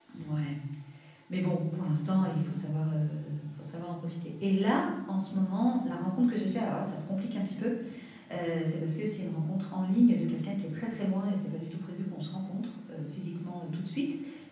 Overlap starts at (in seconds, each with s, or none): none